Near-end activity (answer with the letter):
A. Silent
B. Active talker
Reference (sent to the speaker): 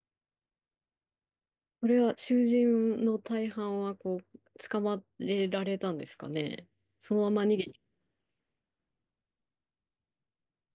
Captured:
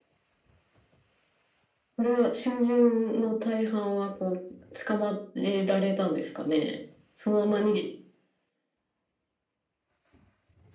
A